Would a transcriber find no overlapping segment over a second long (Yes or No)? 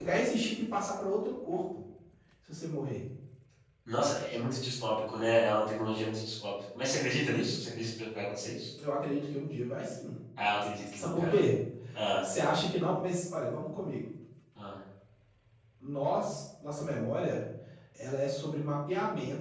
Yes